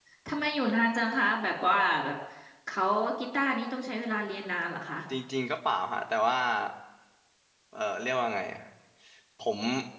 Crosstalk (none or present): none